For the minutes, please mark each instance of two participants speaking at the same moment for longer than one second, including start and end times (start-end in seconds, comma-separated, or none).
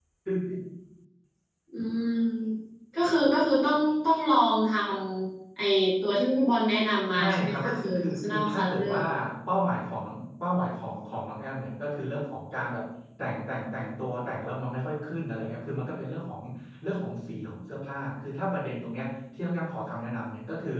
7.1-8.9